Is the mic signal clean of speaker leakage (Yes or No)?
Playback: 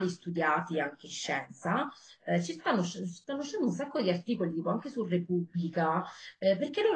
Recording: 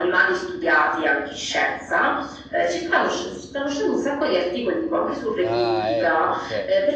No